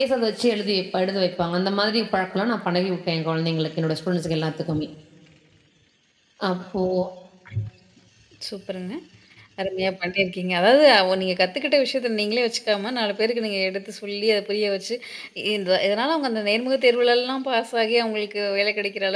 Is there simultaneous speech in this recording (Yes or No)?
No